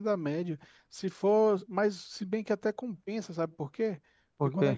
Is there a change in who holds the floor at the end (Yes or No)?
No